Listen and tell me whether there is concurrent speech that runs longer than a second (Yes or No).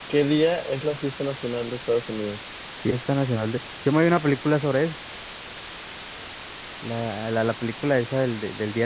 No